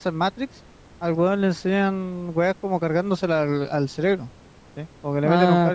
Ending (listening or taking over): listening